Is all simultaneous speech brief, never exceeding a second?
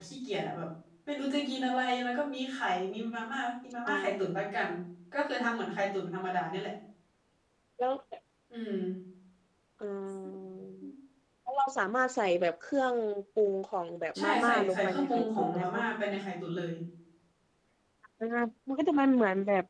No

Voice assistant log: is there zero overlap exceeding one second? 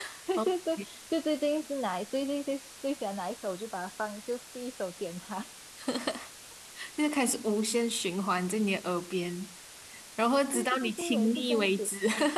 No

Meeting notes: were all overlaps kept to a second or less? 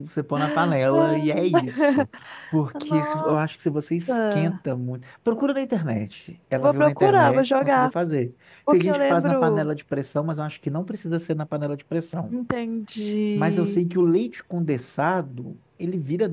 No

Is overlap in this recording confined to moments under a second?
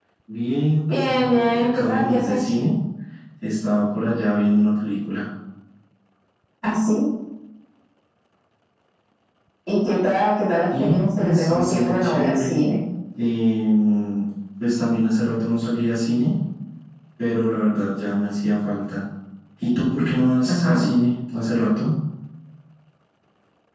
No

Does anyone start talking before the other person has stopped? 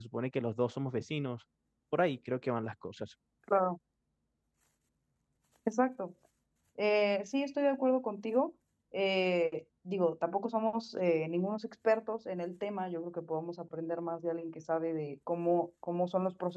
No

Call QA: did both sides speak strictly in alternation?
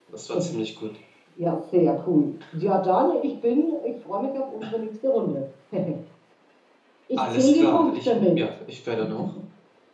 No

